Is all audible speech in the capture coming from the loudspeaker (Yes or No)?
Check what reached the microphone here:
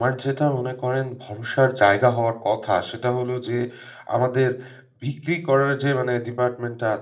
No